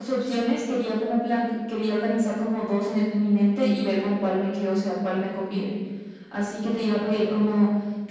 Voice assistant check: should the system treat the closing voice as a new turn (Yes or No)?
No